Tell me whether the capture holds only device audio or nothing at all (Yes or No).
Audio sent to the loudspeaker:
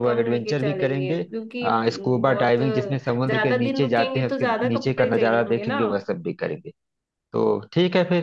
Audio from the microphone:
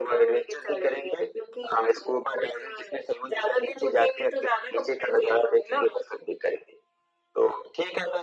Yes